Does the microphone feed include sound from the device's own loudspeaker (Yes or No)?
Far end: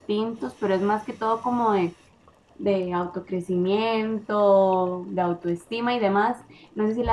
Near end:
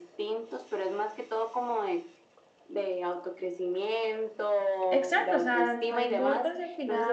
Yes